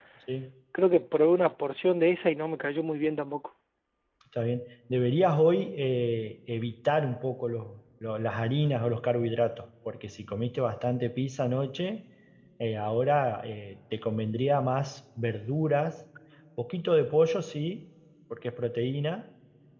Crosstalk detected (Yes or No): No